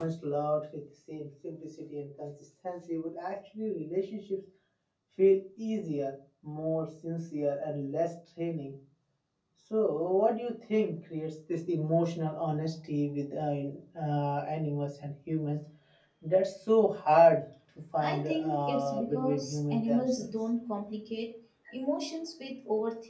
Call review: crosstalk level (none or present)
present